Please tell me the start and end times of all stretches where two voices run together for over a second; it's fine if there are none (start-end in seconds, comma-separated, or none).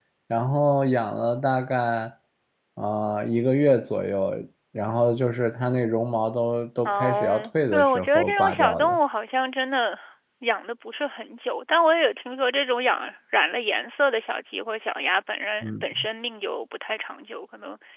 6.8-9.0